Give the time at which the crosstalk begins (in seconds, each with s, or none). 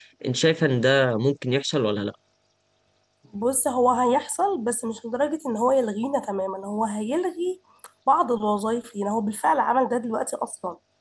none